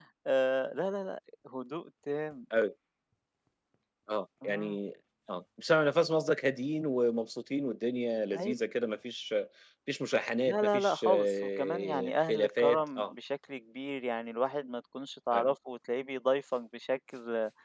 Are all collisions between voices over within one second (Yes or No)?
No